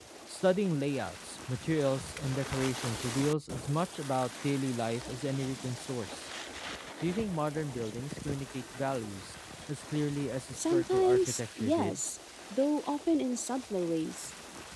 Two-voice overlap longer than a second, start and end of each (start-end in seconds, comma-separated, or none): 10.6-12.0